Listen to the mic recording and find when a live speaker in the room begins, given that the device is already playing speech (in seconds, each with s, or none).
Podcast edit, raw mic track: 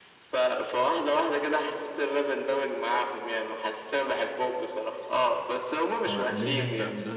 6.0 s